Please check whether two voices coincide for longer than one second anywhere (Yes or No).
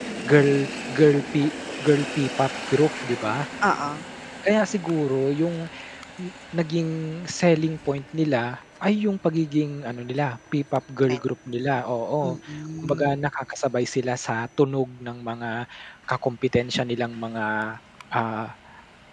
No